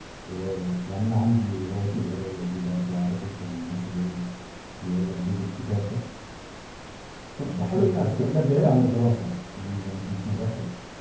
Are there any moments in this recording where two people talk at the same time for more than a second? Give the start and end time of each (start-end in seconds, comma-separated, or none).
7.4-9.0